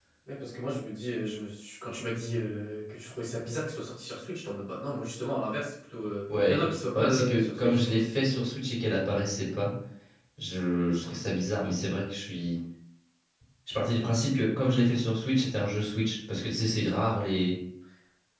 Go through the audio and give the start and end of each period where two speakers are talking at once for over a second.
6.5-8.1

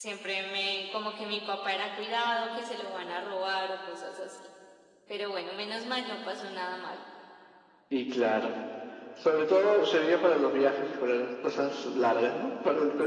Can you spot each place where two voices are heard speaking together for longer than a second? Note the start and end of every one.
none

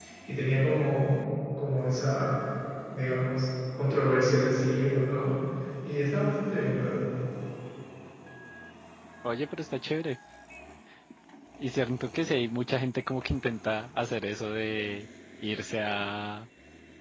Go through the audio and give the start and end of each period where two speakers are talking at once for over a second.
none

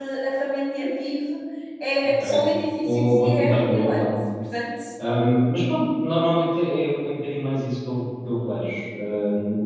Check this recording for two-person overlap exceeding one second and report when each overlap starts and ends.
2.8-4.0

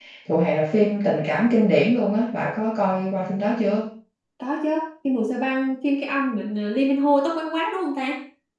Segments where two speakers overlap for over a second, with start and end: none

